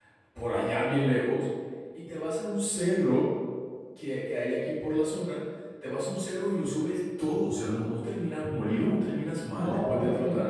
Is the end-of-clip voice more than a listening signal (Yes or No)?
Yes